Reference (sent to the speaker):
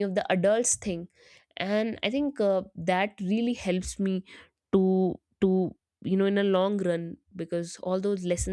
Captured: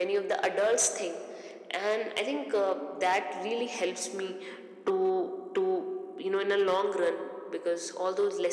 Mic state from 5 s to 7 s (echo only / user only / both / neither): echo only